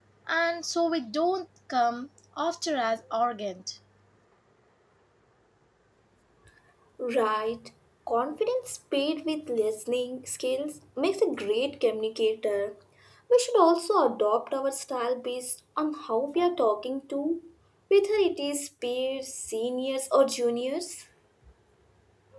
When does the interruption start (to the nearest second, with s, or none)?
none